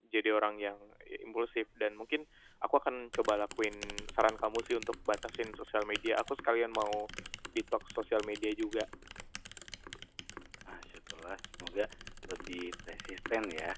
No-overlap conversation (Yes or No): Yes